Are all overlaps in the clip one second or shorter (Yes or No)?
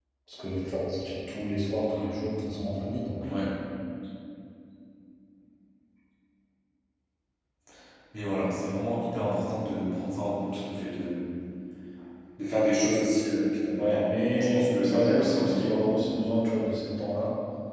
No